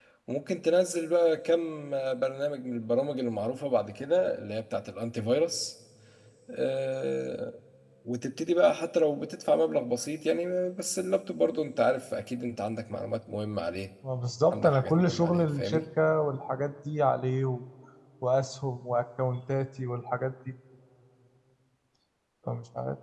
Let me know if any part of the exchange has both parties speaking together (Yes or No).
Yes